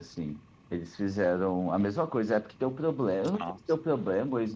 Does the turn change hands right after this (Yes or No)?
No